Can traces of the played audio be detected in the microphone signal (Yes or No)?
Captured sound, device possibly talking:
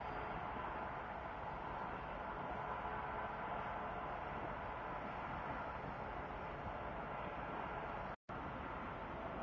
No